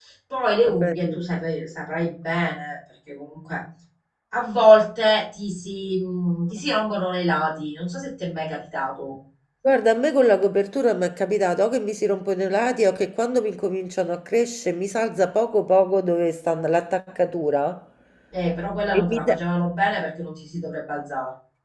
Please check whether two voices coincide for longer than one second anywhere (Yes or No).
No